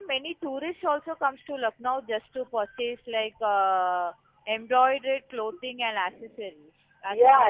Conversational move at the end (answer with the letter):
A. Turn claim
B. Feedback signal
A